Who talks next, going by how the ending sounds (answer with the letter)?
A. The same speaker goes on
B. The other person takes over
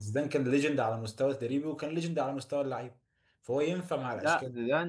B